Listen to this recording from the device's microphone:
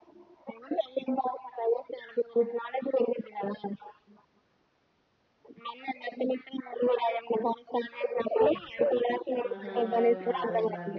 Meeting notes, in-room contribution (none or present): present